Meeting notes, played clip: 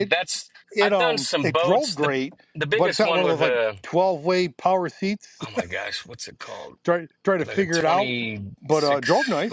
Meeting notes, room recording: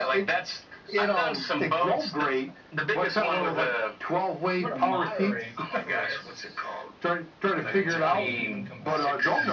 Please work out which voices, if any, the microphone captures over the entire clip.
both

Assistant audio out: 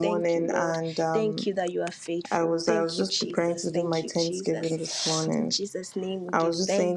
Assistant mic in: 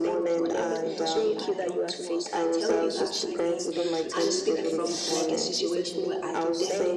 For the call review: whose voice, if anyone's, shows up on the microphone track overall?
both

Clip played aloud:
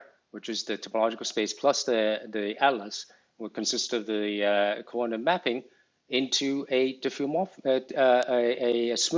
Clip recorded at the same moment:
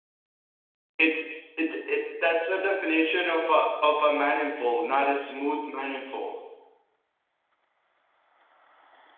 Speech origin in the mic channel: user only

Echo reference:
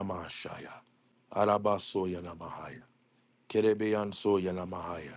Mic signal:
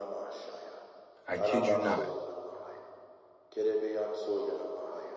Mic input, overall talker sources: both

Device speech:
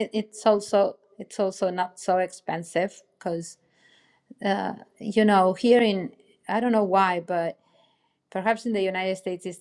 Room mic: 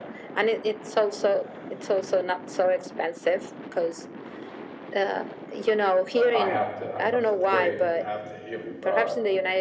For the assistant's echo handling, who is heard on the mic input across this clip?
both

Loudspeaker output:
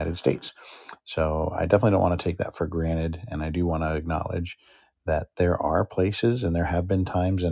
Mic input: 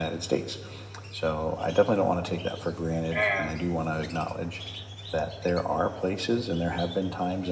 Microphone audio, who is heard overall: both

